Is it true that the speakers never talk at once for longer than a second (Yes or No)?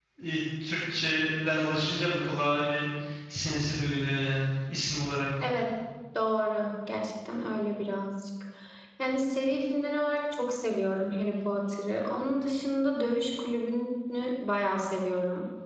Yes